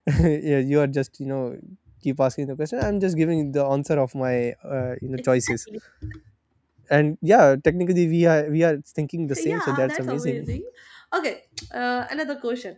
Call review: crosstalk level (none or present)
present